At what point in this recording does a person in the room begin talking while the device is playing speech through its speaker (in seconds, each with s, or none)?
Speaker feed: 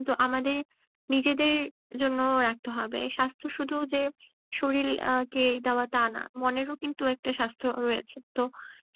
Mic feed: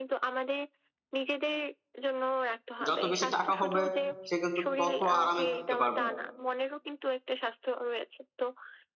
2.9 s